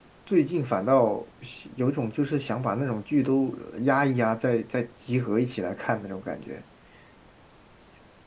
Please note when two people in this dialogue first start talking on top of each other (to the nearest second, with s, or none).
none